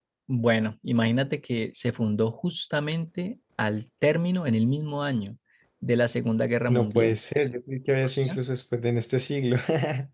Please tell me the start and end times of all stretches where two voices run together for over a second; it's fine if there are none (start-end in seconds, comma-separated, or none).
none